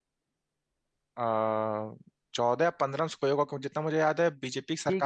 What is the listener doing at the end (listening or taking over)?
taking over